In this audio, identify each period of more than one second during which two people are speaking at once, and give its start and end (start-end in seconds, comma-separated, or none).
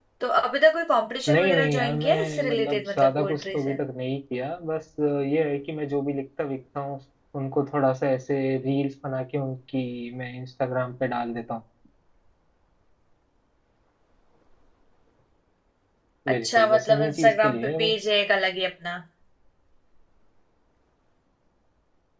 1.3-3.8, 16.3-17.9